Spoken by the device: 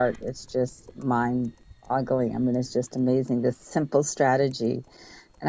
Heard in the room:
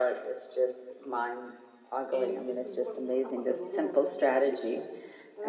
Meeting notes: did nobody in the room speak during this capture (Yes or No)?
No